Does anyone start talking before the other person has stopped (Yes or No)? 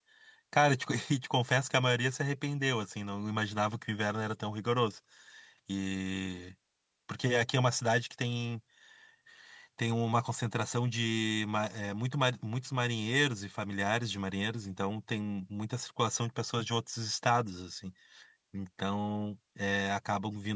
No